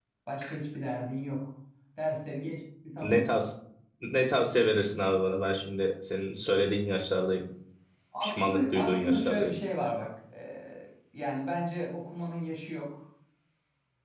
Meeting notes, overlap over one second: present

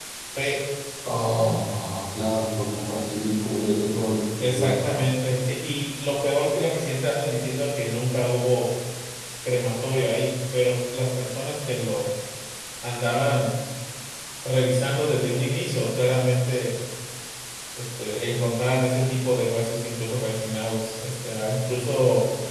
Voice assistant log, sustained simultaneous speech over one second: none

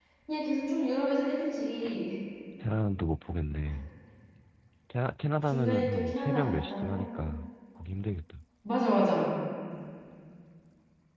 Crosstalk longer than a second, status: present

